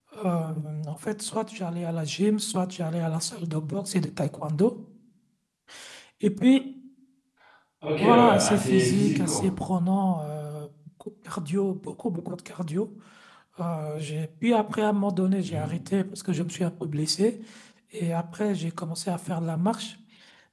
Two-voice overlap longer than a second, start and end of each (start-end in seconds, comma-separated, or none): 8.0-9.4